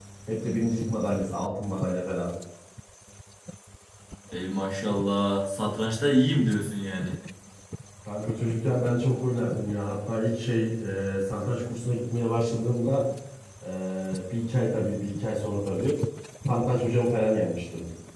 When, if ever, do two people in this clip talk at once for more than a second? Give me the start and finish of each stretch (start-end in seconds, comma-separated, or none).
none